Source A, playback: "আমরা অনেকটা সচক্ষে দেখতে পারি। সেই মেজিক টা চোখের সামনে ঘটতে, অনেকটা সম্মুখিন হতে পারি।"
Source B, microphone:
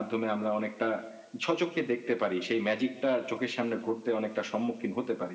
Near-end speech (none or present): none